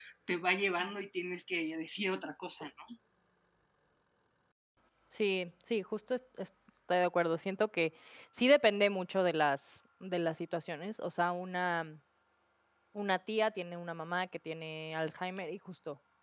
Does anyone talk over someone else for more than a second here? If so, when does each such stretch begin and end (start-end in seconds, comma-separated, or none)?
none